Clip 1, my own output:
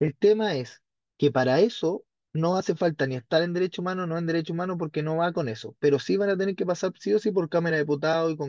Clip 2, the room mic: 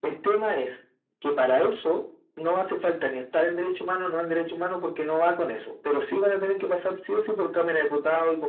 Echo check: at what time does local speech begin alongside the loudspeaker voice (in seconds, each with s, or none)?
none